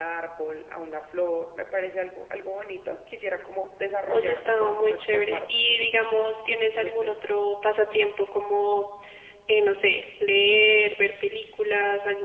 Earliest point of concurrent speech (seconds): 4.1 s

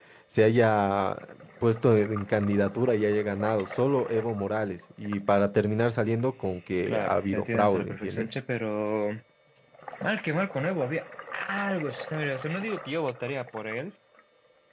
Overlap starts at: 6.9 s

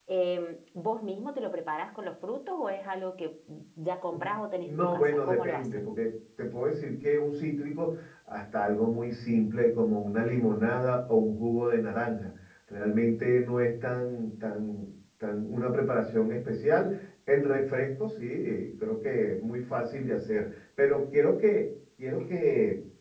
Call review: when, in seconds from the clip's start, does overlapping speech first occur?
4.6 s

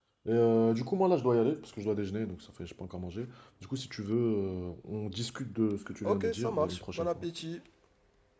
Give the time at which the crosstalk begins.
6.0 s

